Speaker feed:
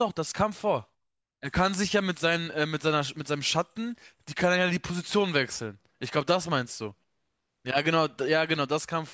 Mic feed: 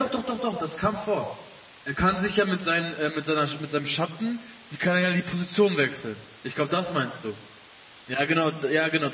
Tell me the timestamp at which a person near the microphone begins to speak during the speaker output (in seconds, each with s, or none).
none